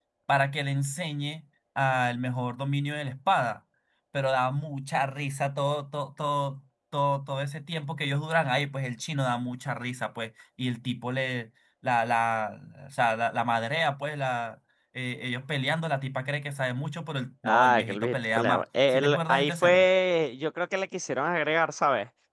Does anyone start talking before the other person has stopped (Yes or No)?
Yes